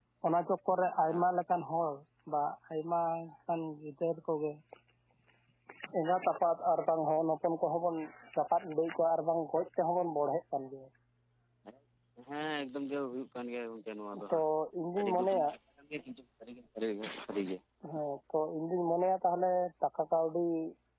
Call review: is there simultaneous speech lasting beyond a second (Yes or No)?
No